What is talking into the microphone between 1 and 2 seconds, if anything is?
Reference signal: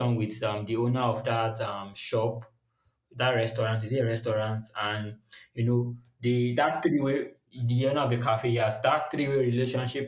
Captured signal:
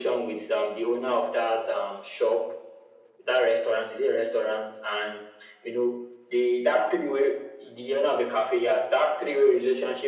echo only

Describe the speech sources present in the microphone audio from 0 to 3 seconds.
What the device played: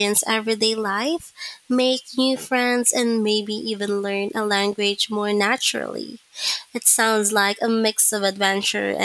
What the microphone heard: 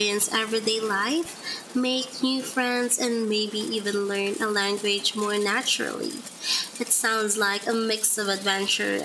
echo only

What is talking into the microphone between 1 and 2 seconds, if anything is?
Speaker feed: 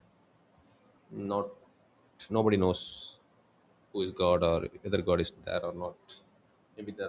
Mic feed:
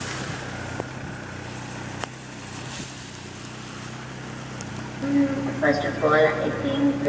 neither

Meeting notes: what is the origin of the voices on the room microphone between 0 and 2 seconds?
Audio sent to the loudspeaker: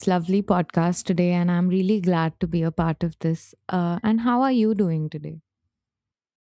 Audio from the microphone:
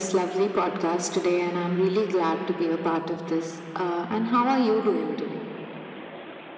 echo only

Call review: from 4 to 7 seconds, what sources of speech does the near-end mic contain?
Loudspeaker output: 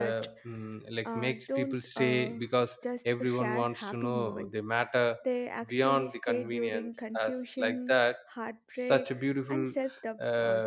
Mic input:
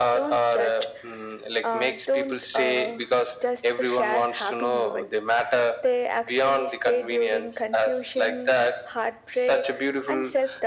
echo only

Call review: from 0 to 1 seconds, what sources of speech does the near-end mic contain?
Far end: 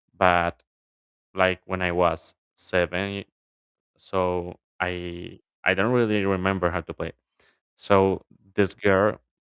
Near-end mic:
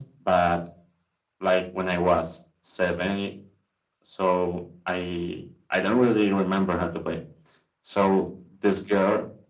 echo only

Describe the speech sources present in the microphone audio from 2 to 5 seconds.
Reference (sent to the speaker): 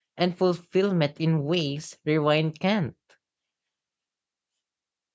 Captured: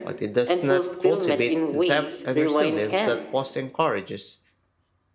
both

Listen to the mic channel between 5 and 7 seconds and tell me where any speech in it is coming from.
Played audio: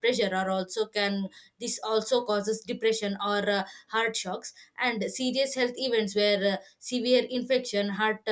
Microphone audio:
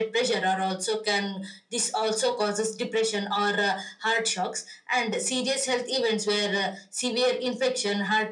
echo only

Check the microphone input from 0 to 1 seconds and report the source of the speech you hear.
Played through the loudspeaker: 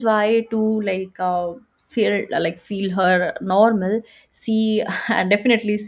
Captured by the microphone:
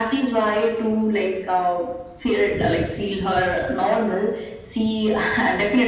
echo only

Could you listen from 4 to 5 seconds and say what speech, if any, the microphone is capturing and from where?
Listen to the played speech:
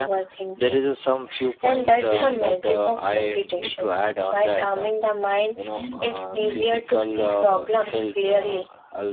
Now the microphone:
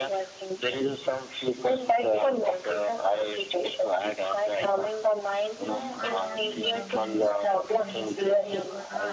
echo only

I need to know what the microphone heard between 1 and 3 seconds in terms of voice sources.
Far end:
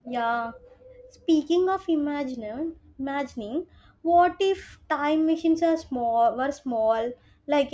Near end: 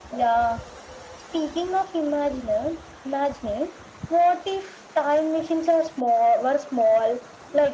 echo only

